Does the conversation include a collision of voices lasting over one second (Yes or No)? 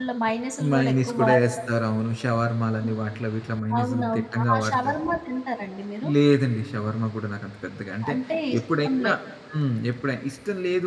Yes